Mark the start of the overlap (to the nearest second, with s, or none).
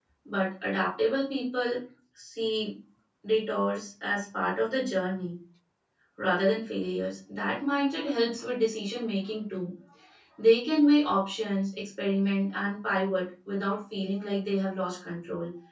none